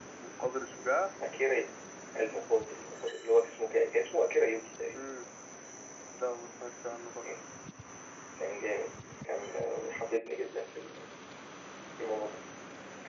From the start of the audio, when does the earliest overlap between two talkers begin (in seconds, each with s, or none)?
none